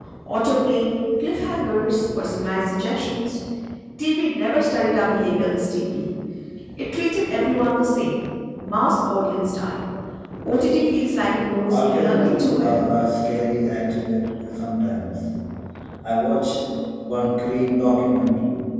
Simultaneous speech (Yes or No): Yes